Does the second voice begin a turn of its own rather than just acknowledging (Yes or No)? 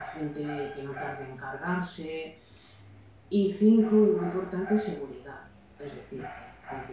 No